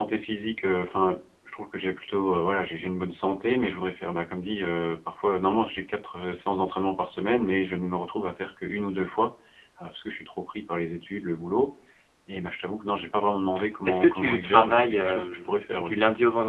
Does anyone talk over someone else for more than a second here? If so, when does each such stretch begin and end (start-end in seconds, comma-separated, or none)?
13.9-15.9